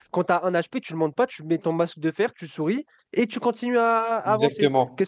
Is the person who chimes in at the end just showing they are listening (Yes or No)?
No